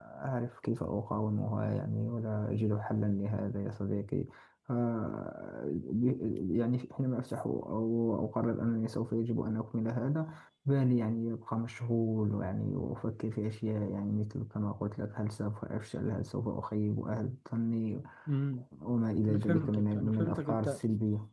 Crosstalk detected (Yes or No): Yes